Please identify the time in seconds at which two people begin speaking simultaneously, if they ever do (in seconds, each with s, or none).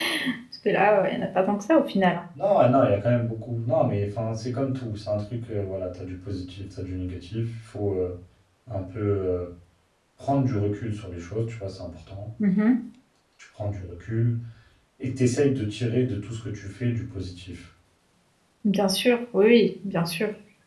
none